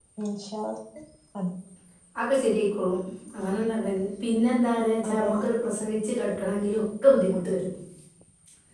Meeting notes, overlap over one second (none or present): none